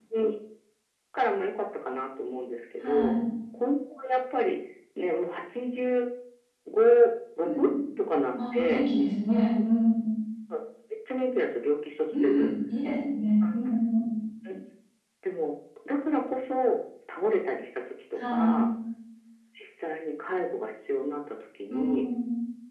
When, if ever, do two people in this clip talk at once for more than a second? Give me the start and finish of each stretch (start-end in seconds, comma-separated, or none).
none